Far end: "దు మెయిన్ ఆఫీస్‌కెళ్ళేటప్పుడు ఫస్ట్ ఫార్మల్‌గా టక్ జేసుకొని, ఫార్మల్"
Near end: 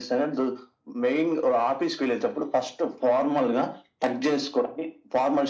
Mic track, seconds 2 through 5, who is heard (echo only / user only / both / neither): echo only